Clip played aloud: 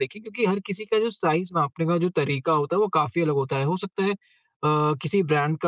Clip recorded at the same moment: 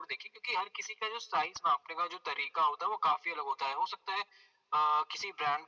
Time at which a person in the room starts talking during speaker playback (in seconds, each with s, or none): none